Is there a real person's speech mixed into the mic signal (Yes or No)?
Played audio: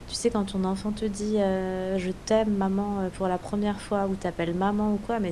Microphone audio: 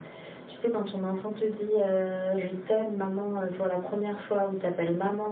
No